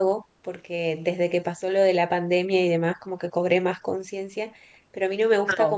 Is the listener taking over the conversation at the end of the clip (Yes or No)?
No